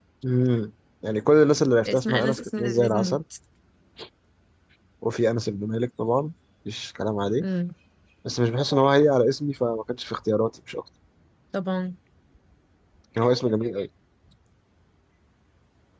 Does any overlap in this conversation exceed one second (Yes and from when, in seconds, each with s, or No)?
Yes, from 1.9 s